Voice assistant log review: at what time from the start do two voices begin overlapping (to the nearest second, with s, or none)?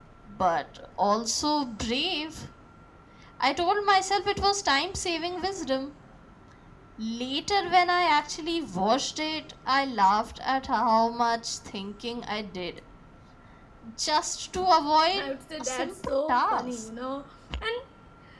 16 s